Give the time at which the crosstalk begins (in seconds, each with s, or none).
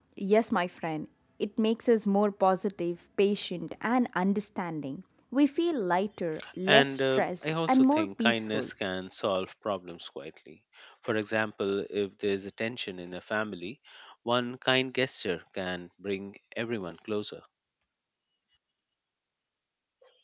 6.7 s